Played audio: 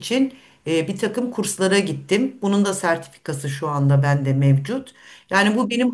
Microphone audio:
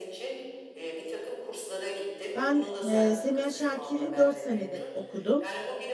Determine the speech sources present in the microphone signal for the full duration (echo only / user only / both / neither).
both